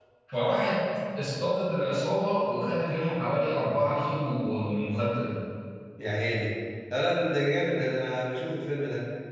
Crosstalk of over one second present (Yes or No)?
No